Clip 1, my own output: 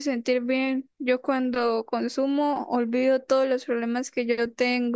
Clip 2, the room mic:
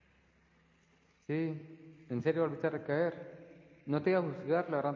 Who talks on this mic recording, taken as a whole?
user only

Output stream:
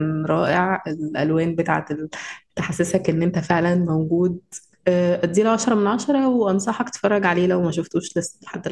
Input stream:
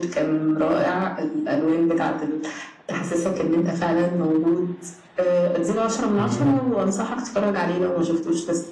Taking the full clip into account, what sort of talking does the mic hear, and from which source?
both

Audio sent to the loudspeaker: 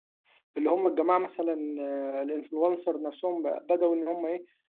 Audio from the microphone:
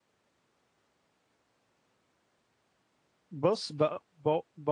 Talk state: user only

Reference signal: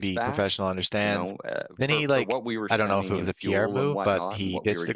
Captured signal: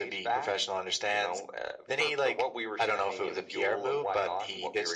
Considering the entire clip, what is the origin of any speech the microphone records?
echo only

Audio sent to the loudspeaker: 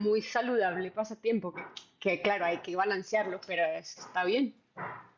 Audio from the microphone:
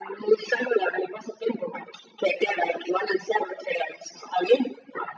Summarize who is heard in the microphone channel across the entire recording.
echo only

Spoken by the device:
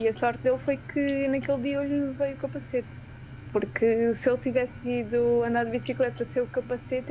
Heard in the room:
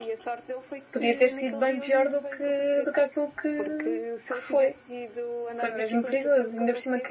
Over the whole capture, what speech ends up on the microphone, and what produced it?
both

